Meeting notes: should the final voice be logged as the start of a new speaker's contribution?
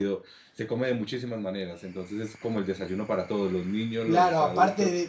Yes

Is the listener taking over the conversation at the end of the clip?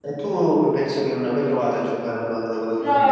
Yes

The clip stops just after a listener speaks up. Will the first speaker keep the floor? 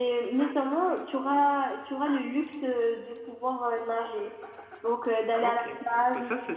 No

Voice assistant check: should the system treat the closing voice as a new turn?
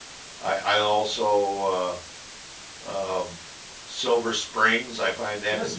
Yes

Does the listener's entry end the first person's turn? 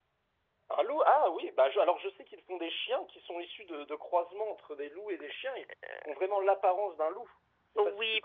Yes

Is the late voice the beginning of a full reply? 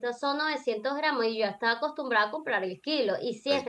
No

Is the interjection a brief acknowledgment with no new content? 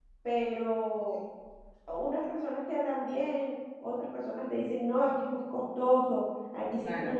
Yes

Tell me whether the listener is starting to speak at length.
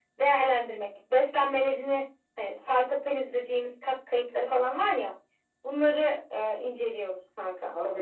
Yes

